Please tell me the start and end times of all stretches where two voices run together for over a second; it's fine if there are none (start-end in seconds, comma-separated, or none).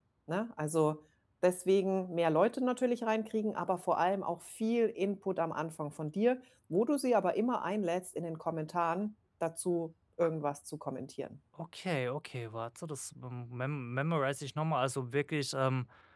none